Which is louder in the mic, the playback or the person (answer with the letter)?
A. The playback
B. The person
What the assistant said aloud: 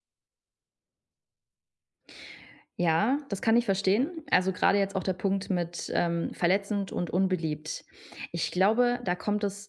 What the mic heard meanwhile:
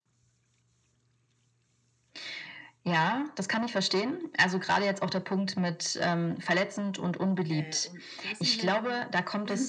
A